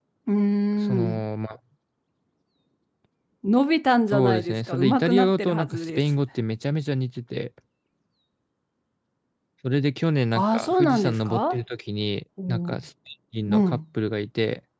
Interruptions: present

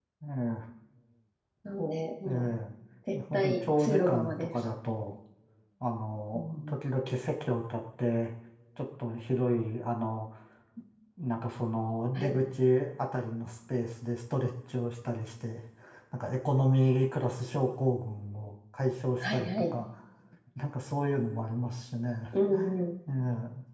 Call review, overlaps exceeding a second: present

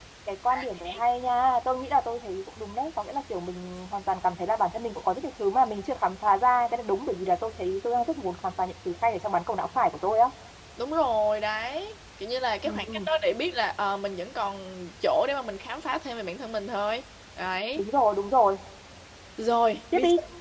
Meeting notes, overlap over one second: none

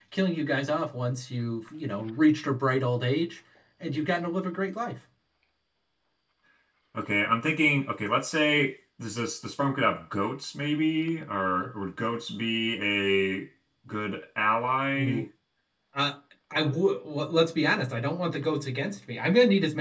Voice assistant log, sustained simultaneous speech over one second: none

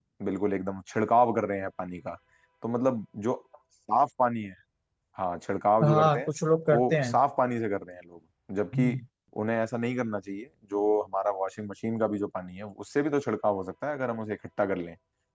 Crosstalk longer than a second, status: none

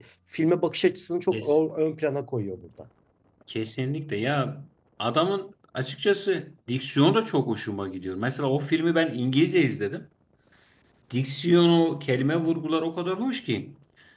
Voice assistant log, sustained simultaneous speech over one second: none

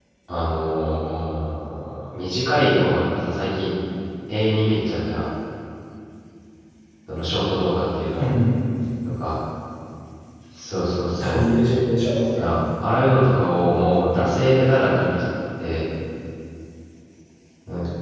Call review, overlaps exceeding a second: none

